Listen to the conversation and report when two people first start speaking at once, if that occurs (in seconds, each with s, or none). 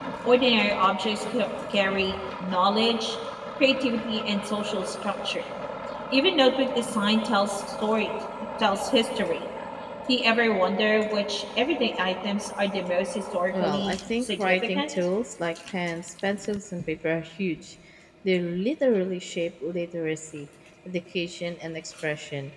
13.5 s